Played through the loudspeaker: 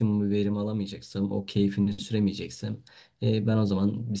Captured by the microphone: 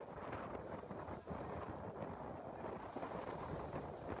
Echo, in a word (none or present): none